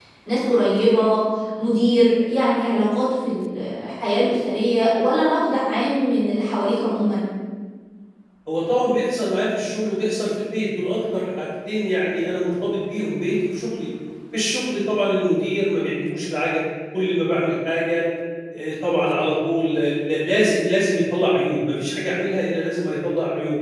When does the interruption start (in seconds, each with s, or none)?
none